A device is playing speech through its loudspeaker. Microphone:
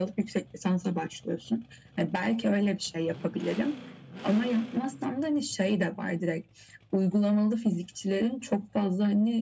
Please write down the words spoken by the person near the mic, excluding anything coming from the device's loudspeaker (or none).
none